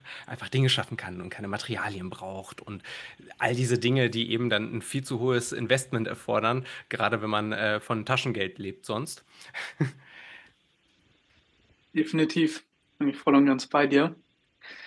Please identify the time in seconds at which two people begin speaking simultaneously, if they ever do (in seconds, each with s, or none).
none